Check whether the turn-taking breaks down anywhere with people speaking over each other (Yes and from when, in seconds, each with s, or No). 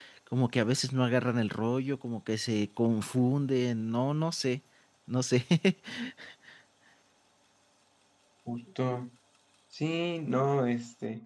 No